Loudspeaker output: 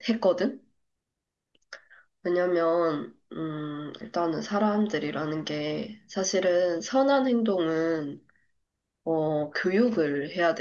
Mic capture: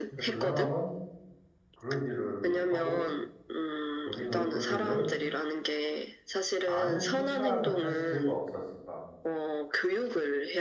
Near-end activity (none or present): present